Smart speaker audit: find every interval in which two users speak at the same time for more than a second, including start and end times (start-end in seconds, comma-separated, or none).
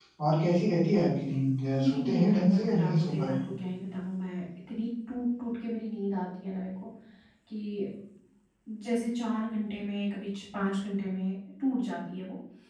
1.8-3.5